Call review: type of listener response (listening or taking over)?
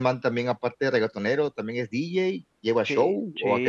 taking over